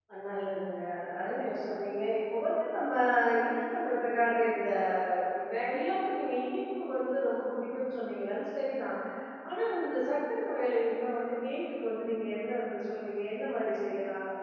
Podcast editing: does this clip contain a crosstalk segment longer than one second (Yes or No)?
No